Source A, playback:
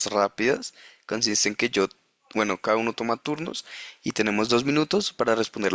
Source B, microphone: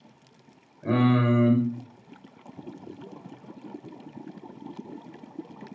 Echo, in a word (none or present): none